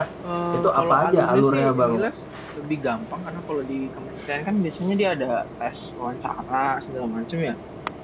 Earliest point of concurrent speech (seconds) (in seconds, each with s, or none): 0.5 s